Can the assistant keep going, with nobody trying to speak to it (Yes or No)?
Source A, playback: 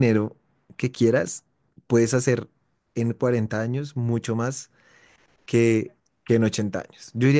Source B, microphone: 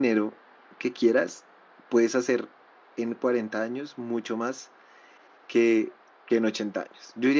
Yes